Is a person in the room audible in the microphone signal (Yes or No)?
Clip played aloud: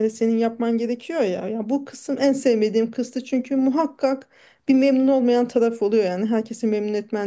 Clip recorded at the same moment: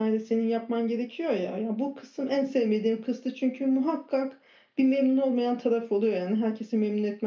No